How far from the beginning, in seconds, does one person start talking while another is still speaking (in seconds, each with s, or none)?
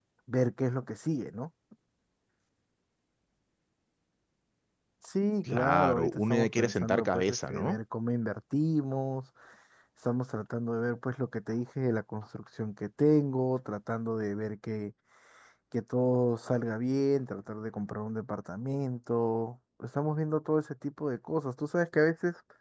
5.5 s